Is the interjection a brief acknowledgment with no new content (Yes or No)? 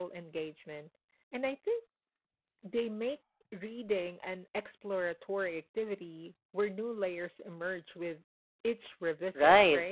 No